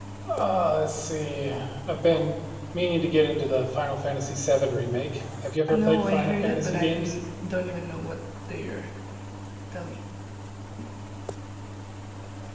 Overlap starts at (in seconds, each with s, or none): 5.7 s